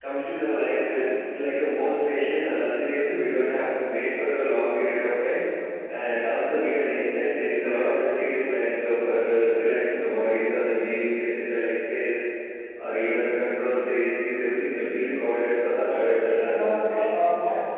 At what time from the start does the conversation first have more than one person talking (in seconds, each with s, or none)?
15.8 s